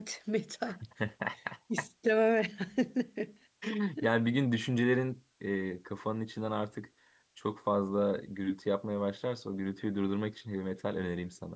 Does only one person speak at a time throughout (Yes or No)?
Yes